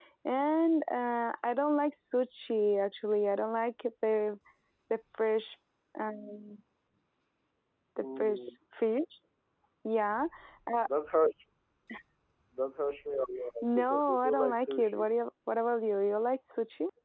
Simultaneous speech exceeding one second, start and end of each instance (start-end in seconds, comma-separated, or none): 13.6-15.1